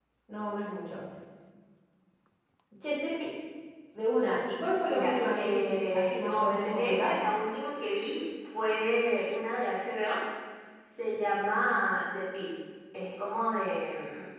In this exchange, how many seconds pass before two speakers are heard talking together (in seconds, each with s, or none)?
4.8 s